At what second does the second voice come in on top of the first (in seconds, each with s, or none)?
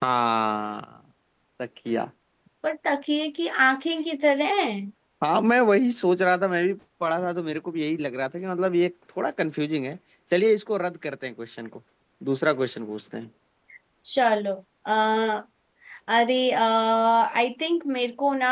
none